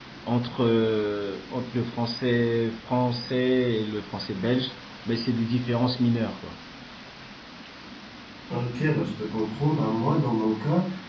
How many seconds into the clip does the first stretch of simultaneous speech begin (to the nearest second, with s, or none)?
none